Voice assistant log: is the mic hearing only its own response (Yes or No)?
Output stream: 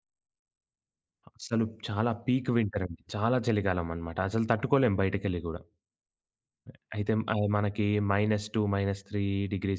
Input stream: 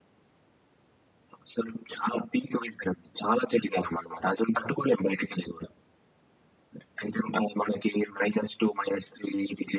Yes